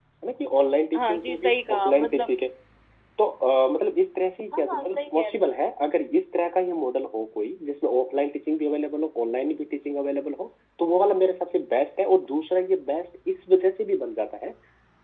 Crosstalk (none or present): present